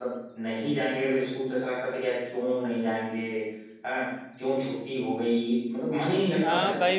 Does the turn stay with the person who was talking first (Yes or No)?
No